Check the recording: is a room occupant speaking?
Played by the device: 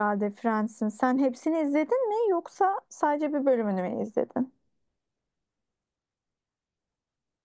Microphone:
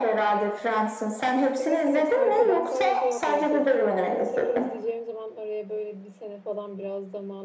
Yes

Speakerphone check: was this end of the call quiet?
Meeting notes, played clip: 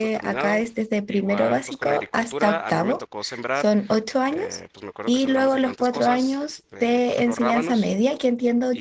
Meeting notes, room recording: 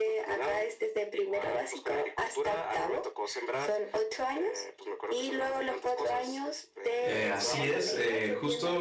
No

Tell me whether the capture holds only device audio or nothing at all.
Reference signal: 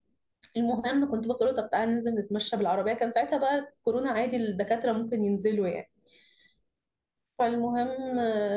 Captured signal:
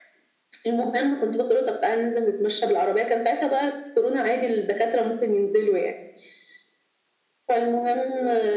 Yes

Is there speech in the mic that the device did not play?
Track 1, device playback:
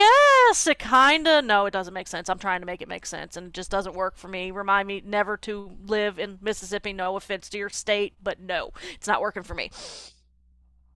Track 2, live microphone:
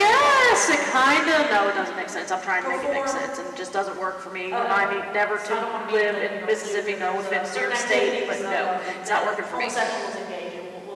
Yes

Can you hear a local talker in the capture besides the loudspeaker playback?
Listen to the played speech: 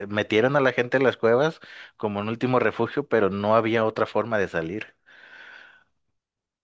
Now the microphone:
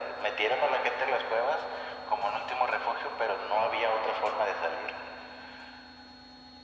No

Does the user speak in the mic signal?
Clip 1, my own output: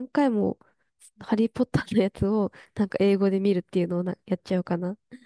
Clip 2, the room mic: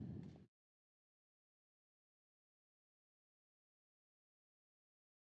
No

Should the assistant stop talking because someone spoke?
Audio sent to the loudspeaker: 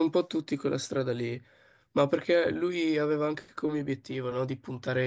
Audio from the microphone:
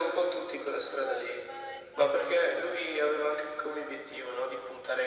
Yes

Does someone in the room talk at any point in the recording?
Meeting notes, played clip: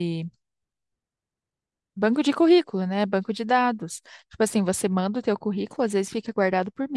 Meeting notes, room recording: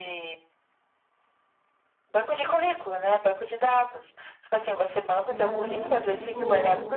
Yes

